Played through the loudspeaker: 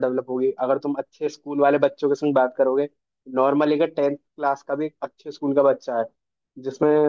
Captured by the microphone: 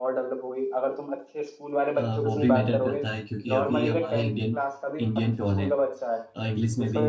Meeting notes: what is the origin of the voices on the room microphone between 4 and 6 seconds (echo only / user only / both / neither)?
both